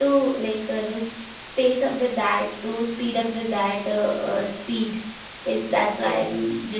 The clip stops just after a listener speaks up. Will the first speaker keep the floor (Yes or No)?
Yes